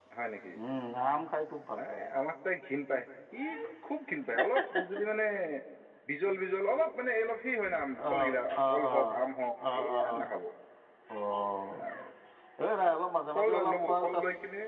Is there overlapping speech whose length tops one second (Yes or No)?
Yes